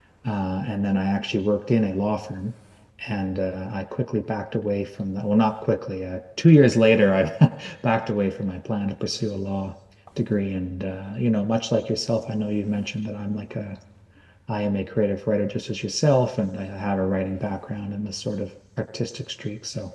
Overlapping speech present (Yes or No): No